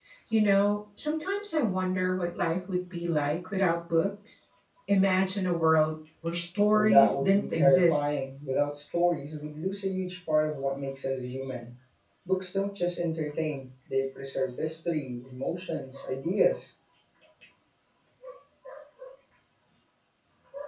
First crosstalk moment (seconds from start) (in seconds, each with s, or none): 6.7 s